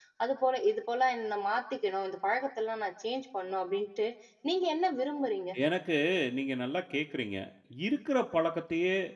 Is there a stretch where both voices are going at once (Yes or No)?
No